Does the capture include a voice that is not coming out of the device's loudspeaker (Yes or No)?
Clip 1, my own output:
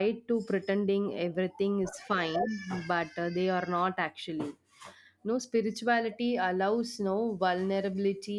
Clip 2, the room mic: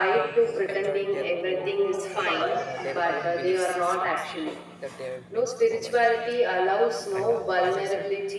Yes